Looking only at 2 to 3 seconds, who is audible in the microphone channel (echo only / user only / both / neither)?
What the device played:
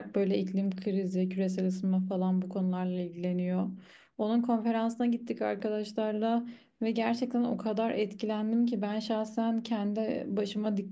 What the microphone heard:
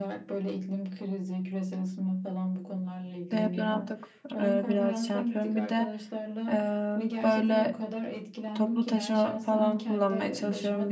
echo only